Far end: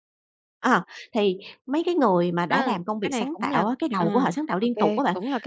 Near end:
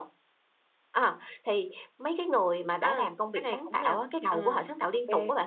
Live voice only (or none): none